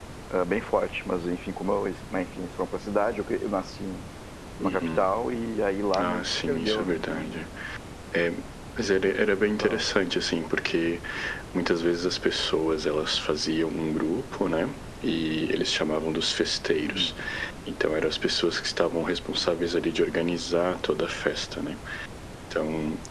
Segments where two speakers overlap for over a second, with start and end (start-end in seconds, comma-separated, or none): 6.0-7.5